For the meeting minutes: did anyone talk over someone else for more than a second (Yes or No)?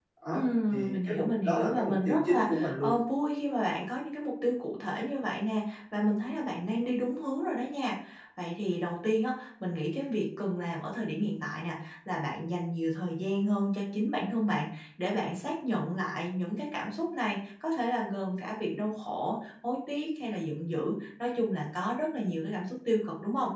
Yes